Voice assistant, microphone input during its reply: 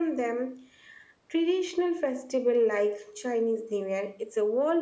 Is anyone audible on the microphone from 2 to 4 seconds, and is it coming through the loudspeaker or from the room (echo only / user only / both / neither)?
echo only